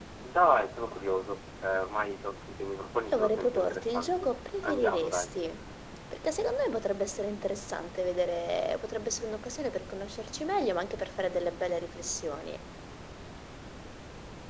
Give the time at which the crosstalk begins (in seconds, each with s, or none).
3.1 s